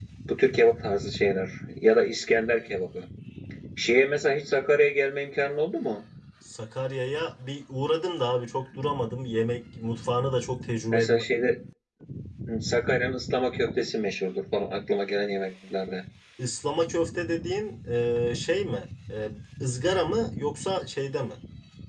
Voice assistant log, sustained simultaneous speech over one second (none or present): none